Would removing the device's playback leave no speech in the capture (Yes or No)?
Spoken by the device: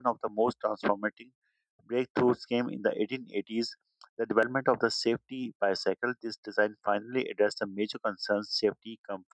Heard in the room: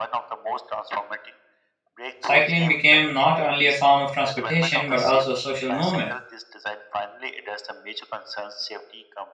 No